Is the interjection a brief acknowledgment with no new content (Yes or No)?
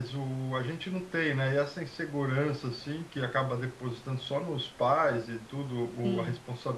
Yes